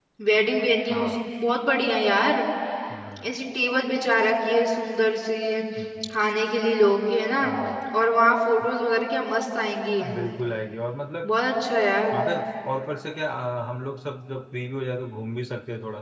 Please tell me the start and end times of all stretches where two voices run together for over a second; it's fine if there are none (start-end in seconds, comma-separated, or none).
none